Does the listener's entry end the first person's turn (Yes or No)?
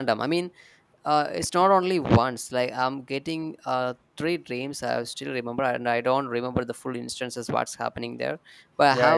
No